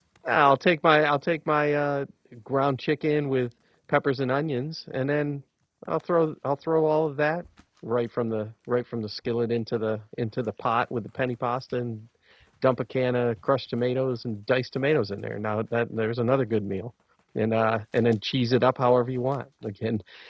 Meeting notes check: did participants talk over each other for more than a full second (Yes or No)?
No